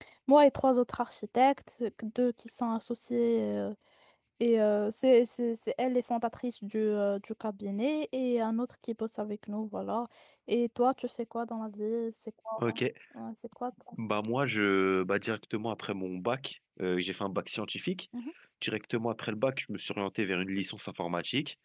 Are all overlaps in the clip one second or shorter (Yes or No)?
Yes